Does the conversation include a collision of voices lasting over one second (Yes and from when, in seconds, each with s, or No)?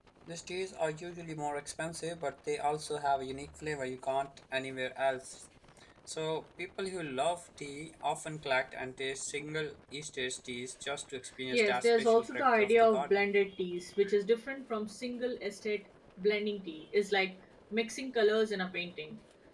Yes, from 11.5 s